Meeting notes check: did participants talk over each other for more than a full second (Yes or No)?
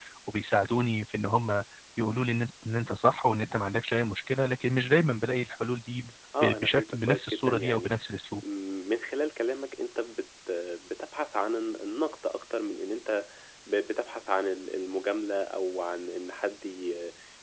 Yes